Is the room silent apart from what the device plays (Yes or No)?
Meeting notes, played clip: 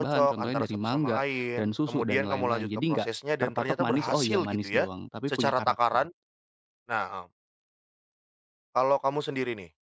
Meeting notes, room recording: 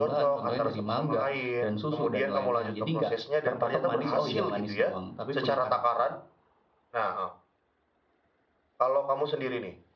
No